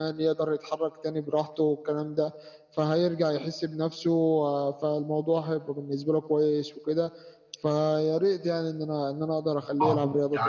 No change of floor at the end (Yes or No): No